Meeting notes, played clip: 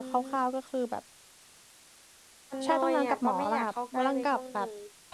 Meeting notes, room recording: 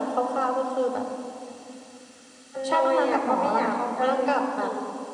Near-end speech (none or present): none